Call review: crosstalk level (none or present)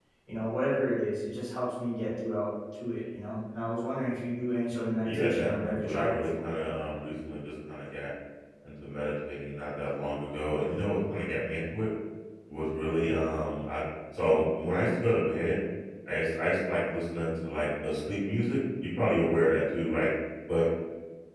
present